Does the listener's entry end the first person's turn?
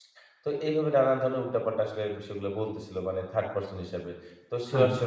No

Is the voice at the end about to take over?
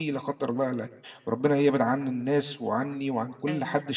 No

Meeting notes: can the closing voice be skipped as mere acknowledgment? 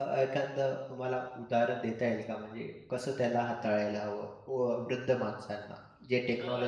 No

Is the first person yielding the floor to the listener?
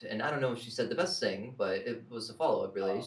No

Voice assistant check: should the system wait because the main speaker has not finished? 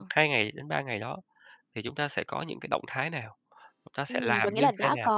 No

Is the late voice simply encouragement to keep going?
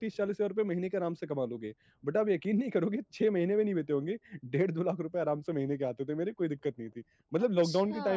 Yes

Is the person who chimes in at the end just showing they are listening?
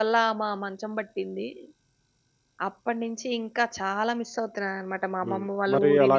No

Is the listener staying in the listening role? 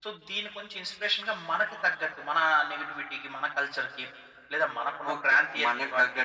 No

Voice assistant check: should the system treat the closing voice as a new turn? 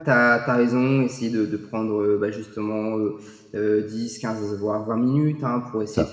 No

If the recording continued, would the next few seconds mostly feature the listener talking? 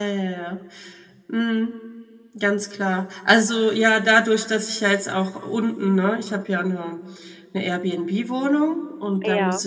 No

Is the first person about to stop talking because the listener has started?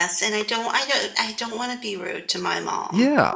Yes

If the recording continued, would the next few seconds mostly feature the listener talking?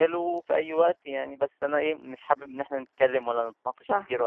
No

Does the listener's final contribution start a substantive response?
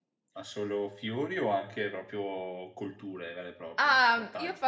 Yes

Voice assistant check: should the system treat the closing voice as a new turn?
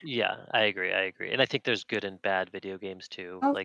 No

